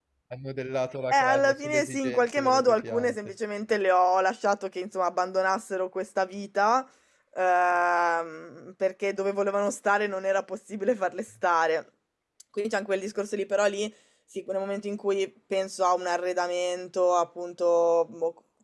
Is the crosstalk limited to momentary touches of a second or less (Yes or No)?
No